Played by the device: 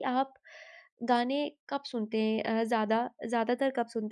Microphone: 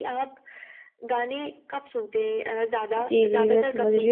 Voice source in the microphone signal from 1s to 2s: echo only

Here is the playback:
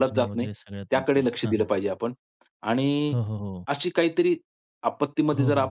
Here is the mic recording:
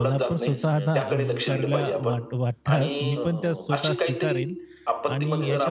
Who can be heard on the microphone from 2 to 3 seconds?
both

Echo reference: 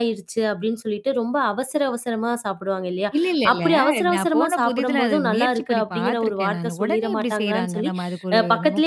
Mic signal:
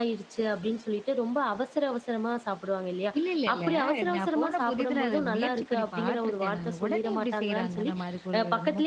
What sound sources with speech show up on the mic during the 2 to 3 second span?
echo only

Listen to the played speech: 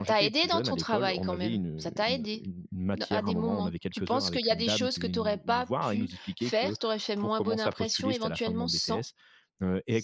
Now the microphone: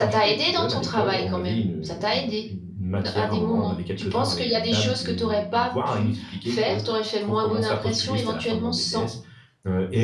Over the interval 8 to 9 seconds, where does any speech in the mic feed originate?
echo only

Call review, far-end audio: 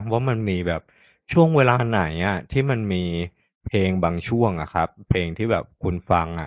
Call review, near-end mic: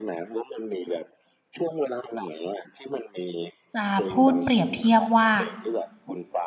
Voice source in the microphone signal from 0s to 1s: echo only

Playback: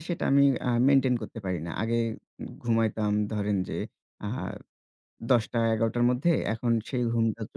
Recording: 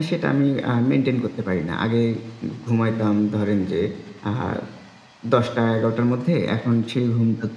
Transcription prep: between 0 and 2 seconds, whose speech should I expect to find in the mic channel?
echo only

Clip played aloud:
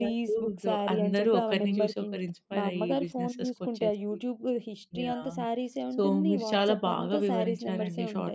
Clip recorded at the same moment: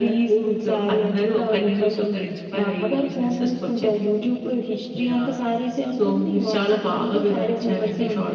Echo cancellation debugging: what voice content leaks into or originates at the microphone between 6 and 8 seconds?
both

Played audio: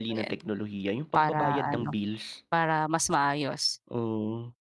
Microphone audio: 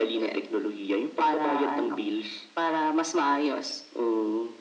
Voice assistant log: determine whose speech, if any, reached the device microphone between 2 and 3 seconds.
echo only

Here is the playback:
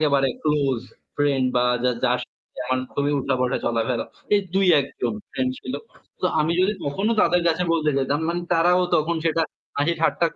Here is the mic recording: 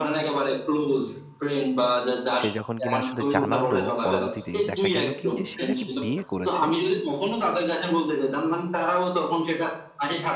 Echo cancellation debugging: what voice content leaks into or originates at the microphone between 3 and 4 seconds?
both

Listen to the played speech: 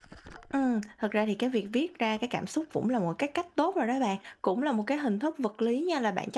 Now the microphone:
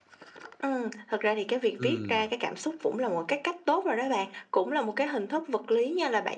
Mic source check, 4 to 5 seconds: echo only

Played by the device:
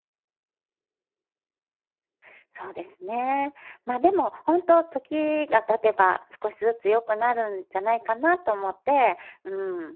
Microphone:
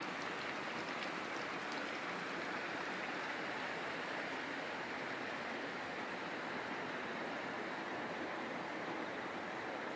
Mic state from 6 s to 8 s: neither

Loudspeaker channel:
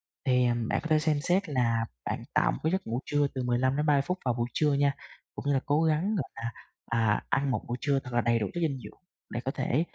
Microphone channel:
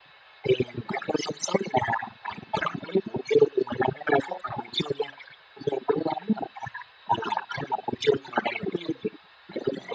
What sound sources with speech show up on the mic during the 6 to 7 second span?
echo only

